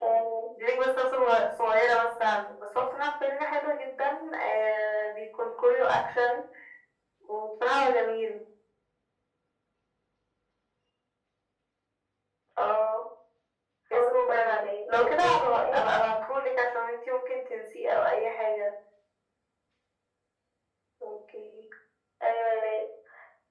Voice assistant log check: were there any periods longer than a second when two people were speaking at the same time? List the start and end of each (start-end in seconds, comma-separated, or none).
13.9-15.8